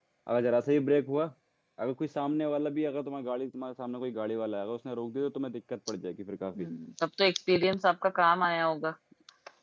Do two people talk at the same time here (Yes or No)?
No